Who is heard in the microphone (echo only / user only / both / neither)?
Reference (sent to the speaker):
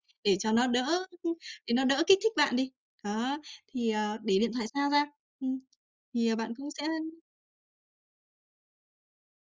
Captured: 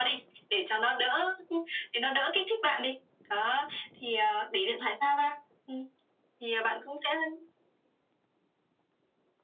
echo only